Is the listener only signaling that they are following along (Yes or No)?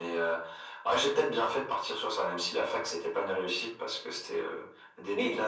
Yes